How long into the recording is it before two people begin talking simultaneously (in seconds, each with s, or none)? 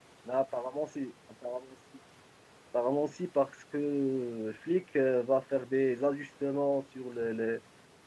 none